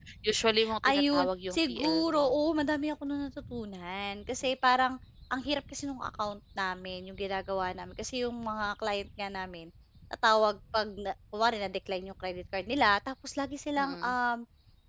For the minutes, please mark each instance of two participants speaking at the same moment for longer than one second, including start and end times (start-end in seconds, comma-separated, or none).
0.9-2.3